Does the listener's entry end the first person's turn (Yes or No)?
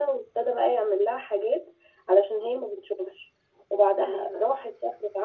No